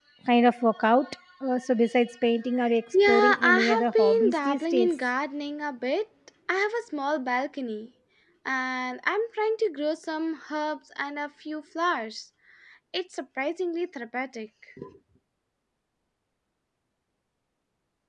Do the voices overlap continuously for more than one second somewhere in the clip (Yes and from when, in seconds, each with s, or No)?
Yes, from 3.1 s